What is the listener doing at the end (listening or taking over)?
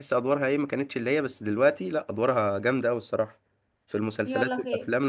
taking over